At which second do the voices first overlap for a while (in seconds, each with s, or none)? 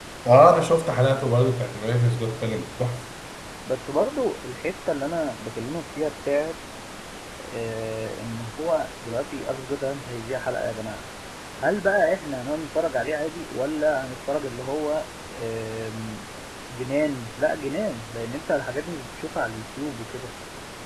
none